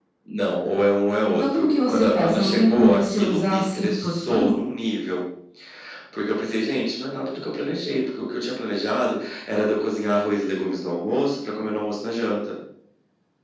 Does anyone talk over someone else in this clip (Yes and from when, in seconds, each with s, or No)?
Yes, from 1.3 s